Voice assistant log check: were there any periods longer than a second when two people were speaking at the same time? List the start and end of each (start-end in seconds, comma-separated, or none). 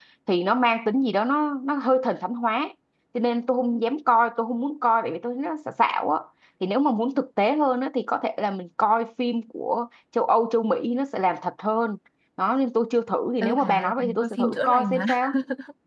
13.4-15.0